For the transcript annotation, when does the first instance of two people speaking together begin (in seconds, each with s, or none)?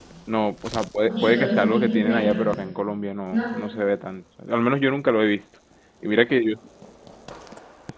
1.1 s